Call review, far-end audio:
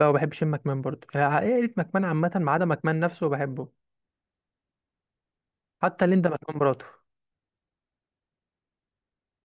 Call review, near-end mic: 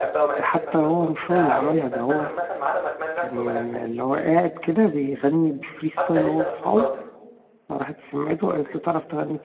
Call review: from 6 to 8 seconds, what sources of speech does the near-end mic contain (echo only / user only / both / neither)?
both